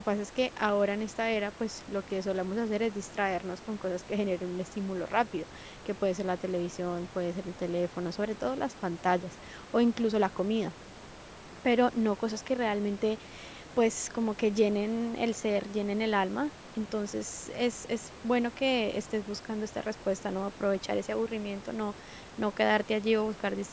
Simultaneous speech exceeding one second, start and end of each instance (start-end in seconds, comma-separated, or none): none